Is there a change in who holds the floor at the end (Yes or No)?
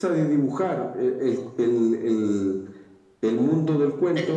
No